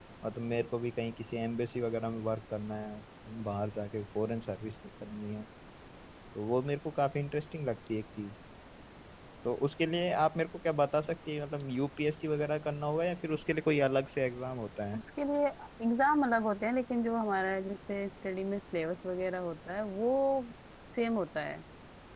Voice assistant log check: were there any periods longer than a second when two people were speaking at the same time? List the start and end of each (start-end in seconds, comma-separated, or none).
none